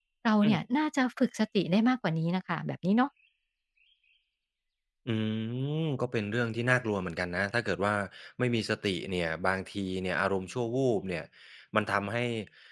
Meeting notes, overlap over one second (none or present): none